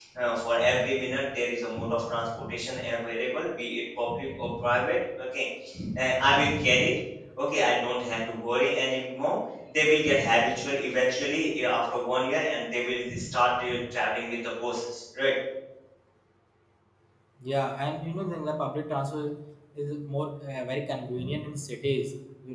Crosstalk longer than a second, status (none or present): none